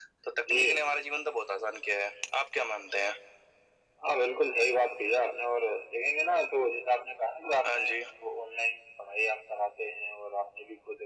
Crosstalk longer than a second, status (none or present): none